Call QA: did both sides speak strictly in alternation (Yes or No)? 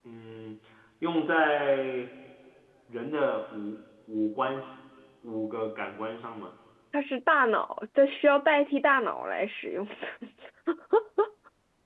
Yes